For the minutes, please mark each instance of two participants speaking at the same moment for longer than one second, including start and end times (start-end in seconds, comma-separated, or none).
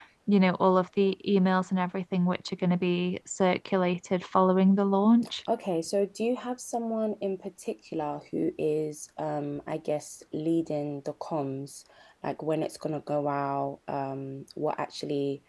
none